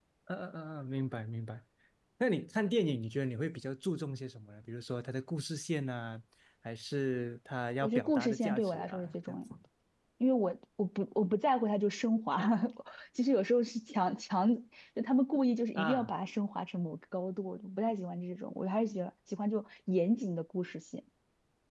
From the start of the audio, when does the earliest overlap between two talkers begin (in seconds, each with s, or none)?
7.8 s